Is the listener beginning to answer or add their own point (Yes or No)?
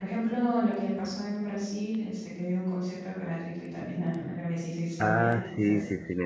Yes